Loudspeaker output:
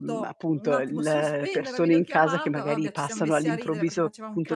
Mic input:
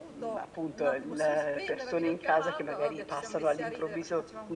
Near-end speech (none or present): none